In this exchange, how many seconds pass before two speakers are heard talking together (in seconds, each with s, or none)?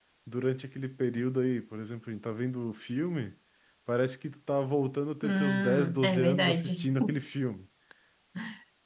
5.2 s